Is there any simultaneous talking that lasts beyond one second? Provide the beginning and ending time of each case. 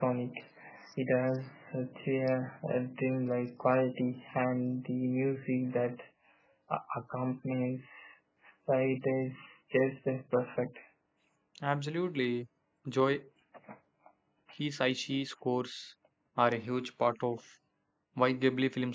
none

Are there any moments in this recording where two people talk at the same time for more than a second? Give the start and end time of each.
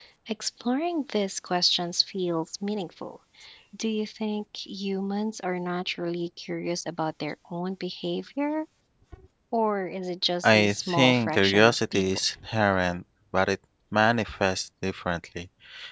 10.4-12.0

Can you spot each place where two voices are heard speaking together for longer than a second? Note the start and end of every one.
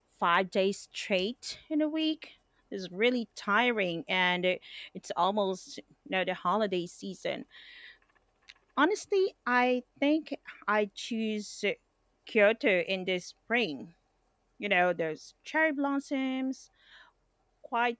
none

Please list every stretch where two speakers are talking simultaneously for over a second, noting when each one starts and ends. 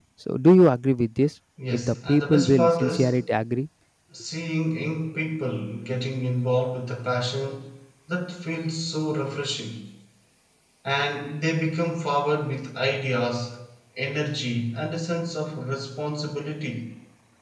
1.7-3.2

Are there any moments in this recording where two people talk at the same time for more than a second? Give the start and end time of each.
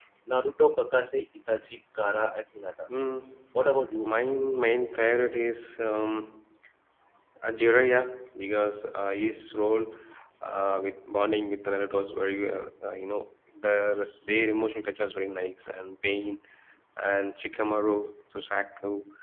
none

